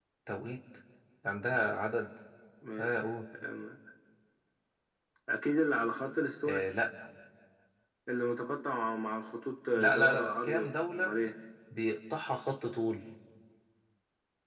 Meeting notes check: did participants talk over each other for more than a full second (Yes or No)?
Yes